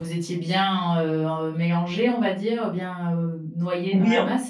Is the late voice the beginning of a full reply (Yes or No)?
Yes